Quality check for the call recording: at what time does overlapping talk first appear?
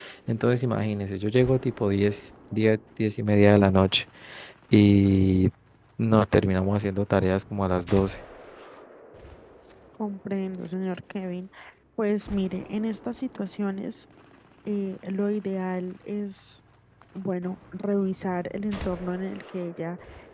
none

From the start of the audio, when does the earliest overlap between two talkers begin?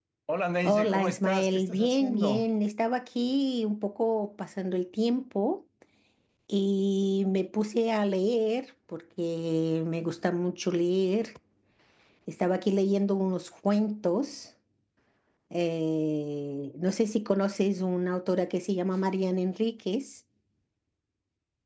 0.7 s

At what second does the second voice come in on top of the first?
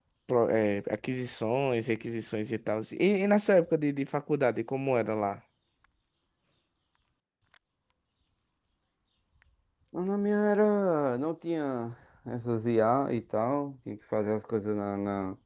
none

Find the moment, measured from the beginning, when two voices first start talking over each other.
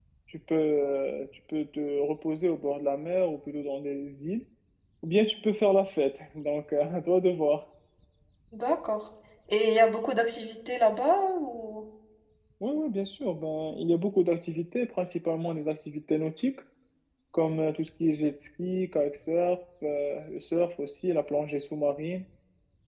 none

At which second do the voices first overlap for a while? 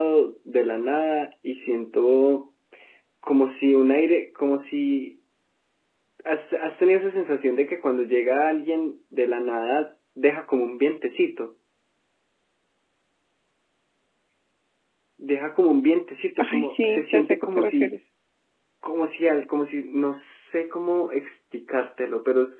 16.4 s

